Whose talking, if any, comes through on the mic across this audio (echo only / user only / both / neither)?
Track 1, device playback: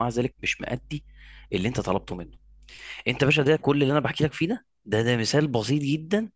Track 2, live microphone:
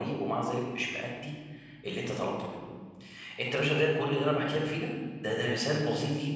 echo only